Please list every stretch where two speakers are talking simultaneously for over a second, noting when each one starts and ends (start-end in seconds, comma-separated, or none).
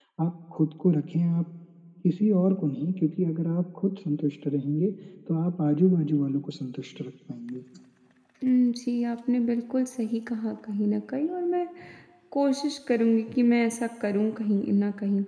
none